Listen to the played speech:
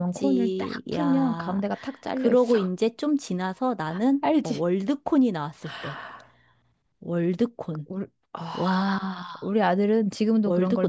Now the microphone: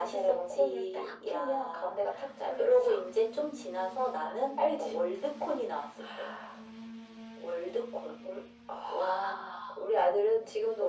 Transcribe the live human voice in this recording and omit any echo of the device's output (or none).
none